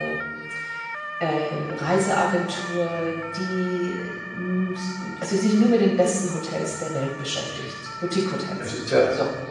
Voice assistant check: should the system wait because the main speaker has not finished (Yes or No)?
No